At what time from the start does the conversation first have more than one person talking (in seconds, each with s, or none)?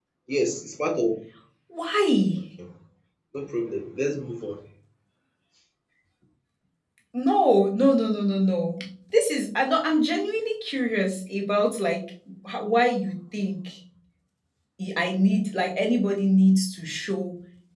none